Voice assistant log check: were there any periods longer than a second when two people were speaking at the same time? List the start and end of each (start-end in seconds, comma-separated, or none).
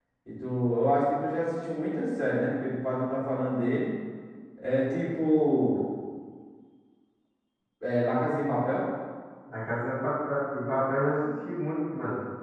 none